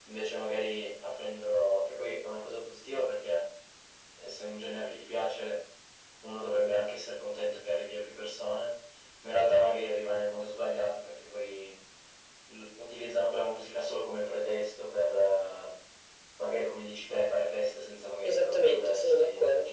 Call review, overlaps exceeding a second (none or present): present